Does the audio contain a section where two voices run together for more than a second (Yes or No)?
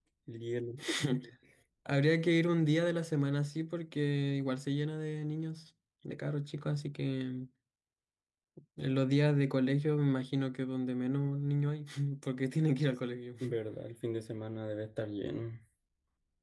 No